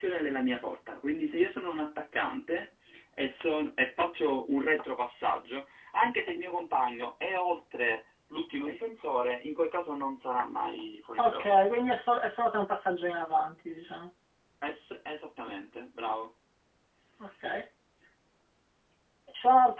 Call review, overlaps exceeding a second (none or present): none